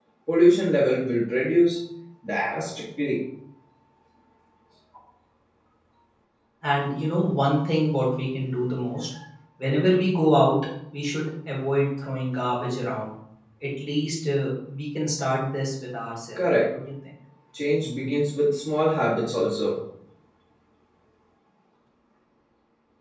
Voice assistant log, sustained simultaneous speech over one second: none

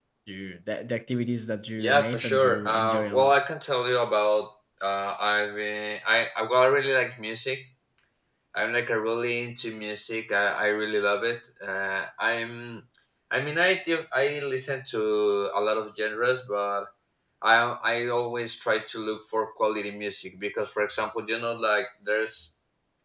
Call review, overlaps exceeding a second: present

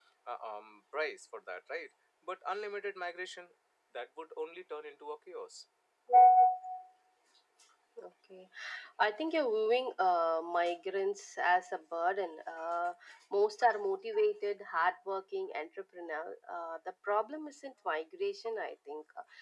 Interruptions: none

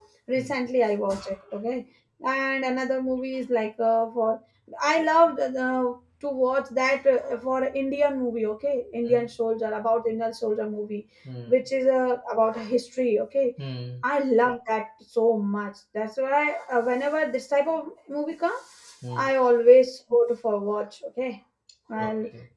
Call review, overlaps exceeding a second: none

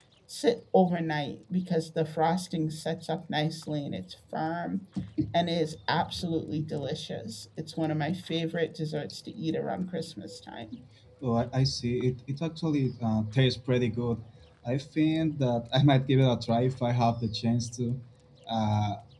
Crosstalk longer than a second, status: none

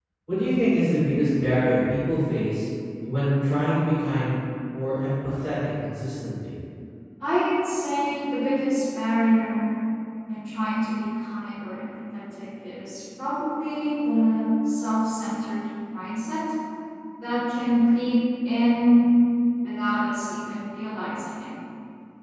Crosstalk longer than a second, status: none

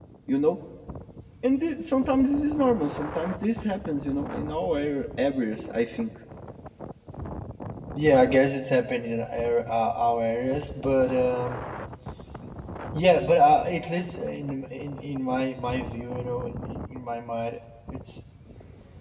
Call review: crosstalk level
none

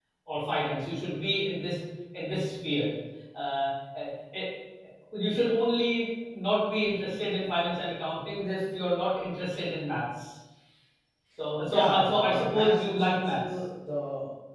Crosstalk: present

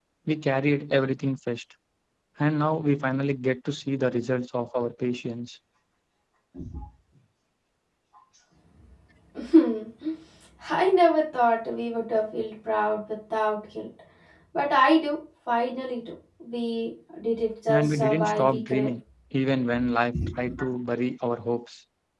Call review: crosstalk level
present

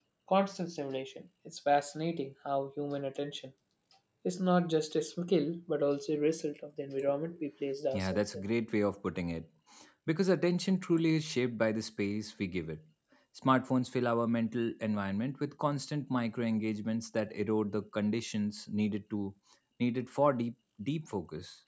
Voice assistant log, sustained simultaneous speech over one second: none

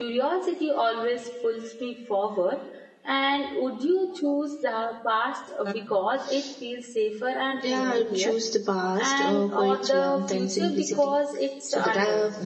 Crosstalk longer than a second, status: present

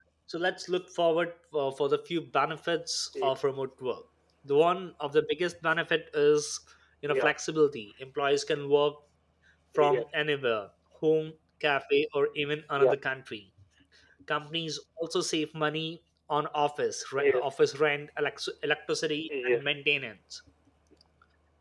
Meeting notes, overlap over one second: none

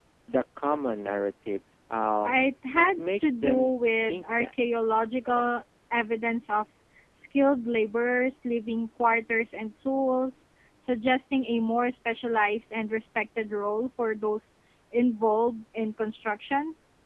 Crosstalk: present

